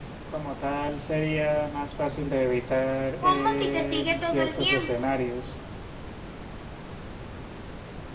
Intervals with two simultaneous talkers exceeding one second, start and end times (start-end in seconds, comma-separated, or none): 3.2-5.0